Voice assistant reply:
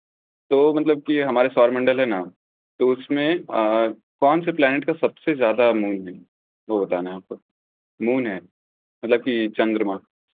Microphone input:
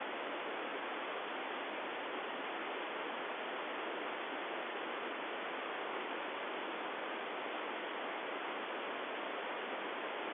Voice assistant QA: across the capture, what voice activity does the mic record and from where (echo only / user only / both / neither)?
neither